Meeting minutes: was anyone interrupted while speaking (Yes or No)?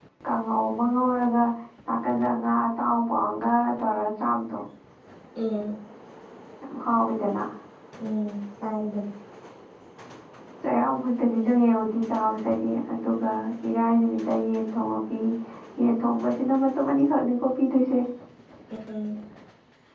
No